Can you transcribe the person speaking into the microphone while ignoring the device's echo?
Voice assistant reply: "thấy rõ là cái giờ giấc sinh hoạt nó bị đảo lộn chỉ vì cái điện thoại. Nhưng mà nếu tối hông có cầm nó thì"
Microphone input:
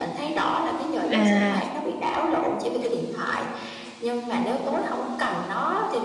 À.

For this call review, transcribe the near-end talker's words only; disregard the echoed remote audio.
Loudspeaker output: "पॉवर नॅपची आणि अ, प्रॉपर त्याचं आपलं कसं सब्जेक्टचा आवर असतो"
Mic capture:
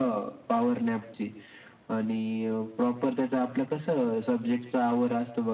none

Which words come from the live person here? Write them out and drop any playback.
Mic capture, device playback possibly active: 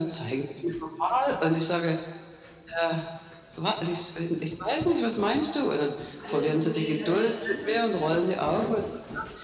alles nur schnell, schnell, schnell,

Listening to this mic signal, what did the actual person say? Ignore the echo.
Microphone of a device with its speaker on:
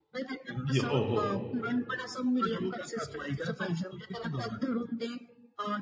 यो हो, हो,

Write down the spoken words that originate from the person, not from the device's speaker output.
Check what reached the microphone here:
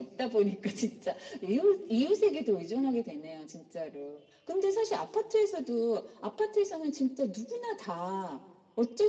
none

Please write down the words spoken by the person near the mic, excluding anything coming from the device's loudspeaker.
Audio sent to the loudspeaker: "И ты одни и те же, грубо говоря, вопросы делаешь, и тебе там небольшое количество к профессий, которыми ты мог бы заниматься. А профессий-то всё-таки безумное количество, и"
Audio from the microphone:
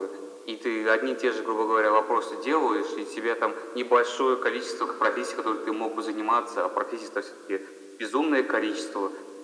none

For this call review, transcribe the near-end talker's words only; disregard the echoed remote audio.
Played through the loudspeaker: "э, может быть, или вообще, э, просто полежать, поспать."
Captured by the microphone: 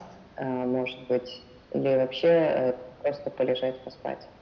none

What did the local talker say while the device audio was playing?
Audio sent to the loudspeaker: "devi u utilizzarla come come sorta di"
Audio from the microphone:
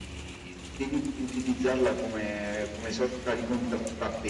none

